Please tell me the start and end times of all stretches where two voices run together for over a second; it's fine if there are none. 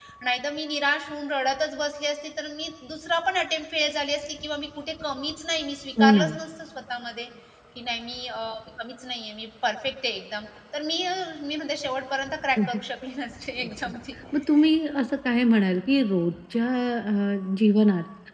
none

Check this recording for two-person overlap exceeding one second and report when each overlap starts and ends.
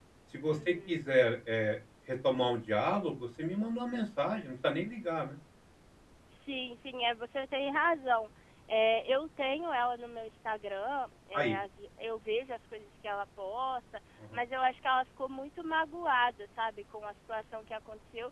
none

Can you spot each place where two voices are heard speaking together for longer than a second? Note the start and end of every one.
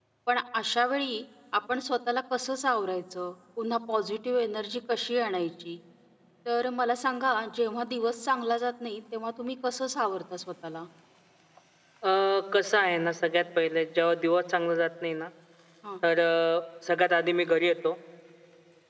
none

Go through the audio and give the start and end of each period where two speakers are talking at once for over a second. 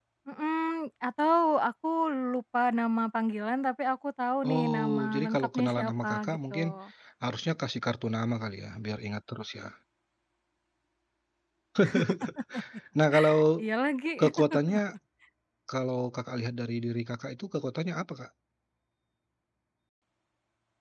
4.6-6.5

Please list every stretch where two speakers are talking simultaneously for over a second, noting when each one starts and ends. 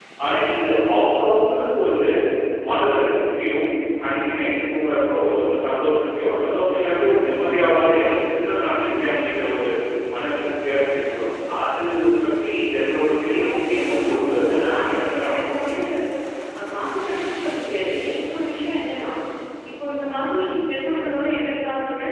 13.3-15.8

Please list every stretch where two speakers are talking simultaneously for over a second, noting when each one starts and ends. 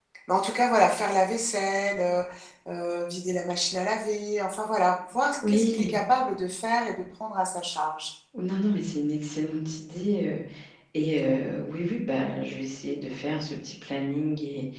none

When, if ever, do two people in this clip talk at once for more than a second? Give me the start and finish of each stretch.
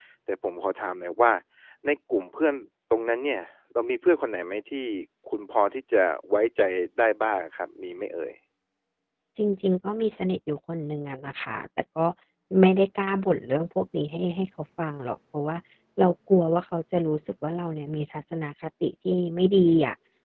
none

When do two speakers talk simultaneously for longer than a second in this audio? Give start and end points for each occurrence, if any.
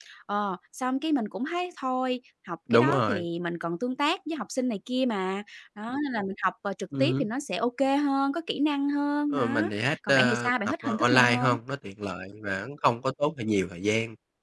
9.3-11.6

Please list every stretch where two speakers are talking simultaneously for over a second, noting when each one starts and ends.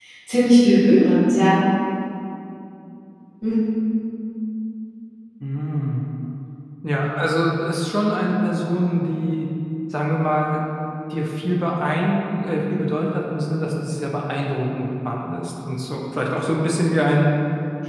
none

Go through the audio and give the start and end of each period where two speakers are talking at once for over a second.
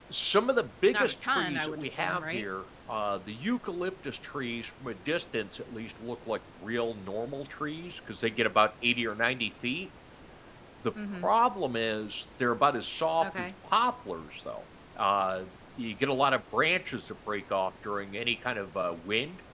0.9-2.4

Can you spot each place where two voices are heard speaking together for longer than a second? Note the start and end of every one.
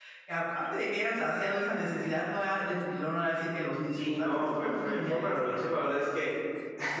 4.0-5.7

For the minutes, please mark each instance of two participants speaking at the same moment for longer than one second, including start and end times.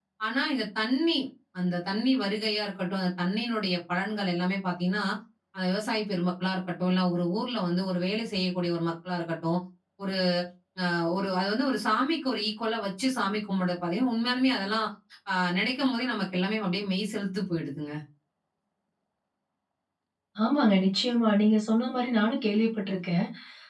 none

